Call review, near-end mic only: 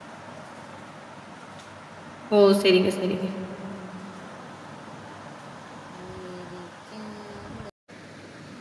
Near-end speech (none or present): present